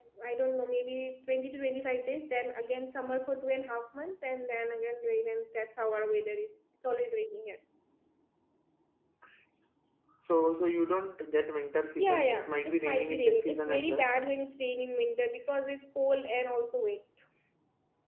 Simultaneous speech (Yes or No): Yes